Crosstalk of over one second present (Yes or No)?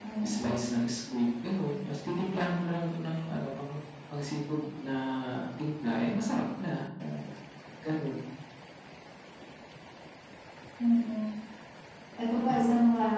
No